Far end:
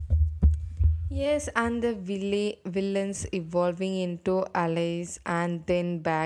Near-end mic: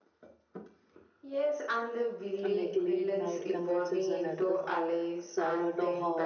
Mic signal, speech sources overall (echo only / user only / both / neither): both